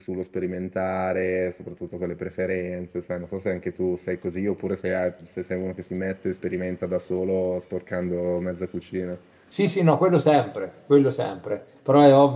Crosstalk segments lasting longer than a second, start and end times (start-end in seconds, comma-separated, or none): none